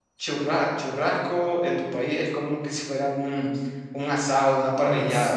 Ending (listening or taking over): taking over